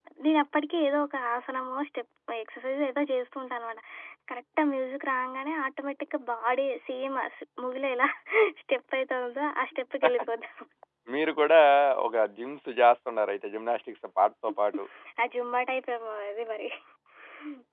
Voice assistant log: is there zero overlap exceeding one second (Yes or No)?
Yes